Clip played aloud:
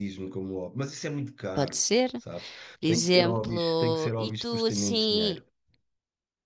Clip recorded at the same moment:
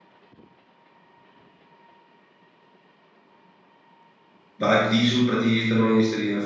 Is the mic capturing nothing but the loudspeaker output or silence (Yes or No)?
No